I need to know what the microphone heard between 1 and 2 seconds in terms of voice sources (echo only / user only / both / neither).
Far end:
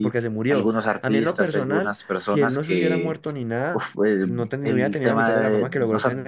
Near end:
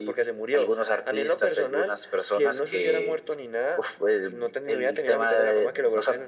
echo only